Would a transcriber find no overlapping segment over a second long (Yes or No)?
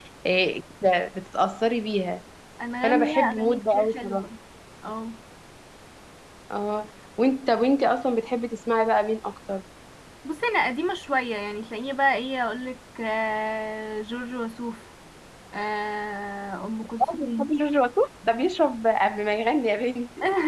No